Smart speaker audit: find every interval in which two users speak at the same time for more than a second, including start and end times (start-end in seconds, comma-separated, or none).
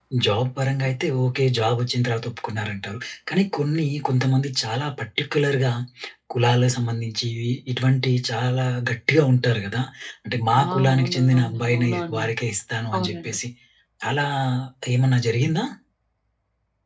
10.6-12.3